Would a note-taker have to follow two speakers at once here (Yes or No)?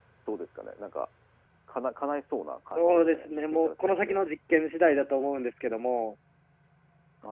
Yes